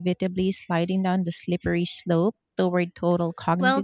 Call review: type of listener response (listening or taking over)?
taking over